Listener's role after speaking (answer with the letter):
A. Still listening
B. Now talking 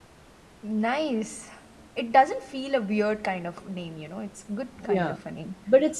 B